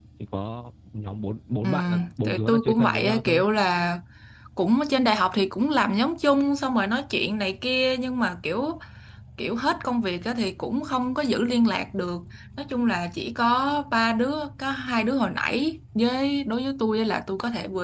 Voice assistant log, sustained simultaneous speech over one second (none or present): present